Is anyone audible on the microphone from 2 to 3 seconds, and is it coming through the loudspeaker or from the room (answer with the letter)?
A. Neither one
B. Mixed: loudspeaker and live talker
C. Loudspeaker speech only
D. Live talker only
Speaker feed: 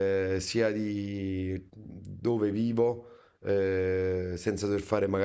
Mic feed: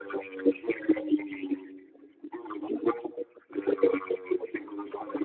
C